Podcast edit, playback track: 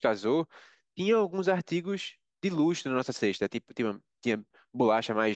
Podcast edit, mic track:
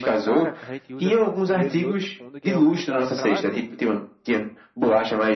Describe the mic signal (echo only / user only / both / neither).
both